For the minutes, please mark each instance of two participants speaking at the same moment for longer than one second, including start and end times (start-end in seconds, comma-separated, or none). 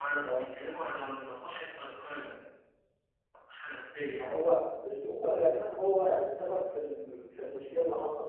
none